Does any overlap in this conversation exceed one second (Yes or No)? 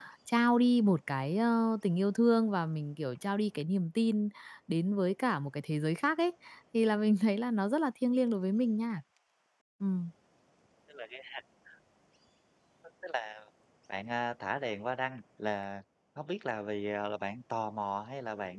No